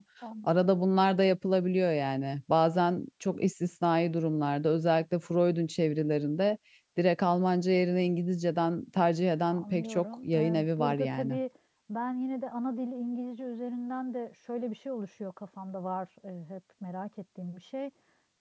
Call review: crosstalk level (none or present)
present